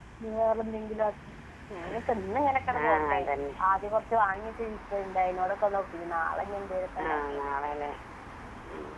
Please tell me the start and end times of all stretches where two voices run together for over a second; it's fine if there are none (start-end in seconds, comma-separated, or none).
none